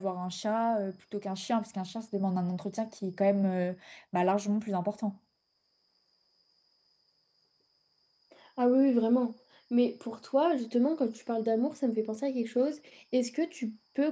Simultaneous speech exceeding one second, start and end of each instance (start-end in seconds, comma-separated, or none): none